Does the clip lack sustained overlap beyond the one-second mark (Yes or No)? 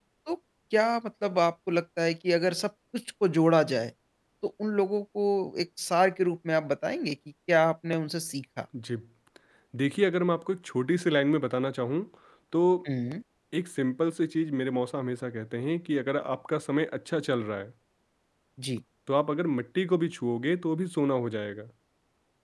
Yes